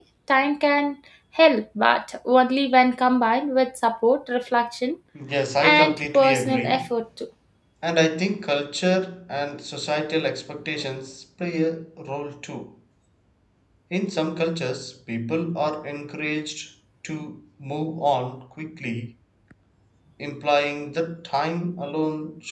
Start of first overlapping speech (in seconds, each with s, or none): 5.6 s